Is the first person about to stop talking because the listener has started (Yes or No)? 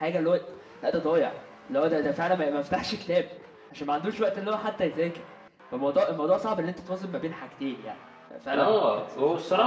Yes